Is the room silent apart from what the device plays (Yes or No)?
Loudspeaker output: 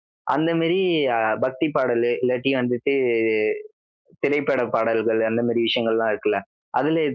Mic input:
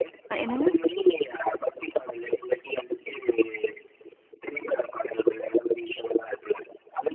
No